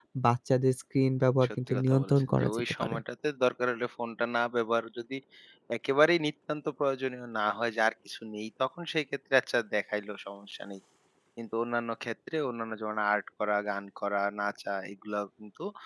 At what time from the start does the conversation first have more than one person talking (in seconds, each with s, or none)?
1.4 s